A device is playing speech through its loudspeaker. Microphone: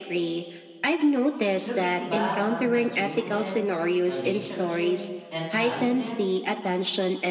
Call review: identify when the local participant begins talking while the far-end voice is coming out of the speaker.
1.6 s

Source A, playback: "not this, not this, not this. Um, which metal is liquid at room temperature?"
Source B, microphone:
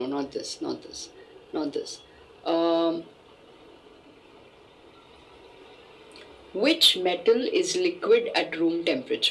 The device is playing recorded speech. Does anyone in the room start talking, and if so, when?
none

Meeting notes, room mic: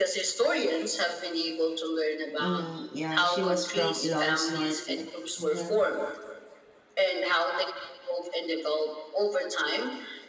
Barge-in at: 2.4 s

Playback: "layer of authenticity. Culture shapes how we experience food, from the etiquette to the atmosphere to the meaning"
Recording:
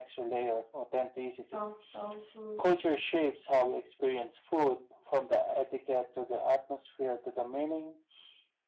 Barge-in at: 1.4 s

